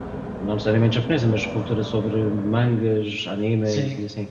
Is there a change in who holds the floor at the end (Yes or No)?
Yes